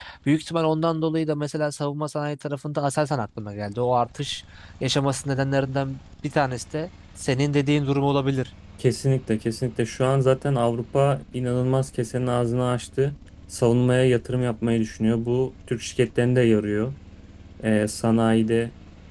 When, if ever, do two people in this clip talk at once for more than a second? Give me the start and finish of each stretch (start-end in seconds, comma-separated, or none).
none